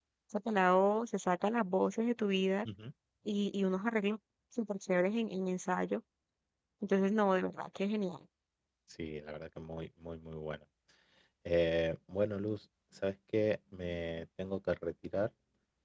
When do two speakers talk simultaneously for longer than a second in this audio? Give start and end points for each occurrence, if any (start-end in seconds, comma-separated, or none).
none